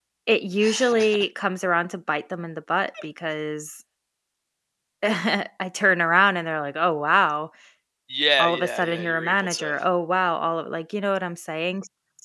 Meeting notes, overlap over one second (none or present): present